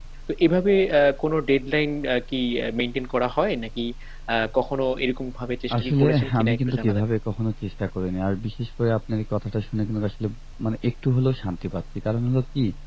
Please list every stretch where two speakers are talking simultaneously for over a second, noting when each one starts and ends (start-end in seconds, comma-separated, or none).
5.8-7.0